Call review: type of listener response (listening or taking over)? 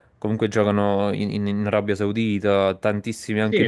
taking over